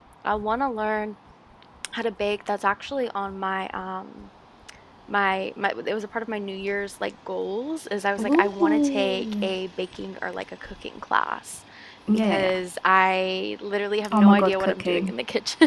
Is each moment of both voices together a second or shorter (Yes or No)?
No